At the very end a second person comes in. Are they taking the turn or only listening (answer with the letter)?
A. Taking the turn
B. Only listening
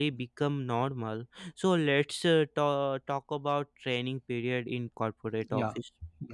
A